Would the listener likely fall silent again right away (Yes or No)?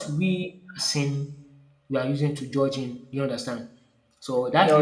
Yes